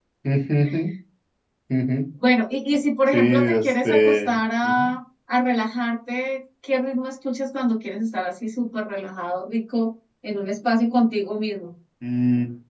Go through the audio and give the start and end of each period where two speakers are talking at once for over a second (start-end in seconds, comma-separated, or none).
3.1-4.9